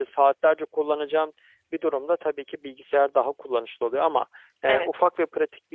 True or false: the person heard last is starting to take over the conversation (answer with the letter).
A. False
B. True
A